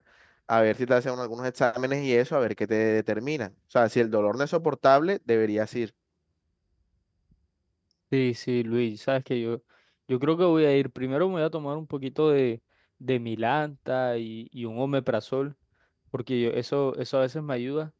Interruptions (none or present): none